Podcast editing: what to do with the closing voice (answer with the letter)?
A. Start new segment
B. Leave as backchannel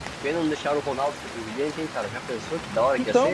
A